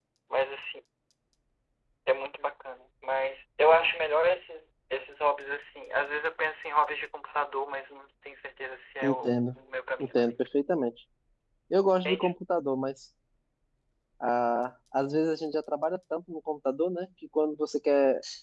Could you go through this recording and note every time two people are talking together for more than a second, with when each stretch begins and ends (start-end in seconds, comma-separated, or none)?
none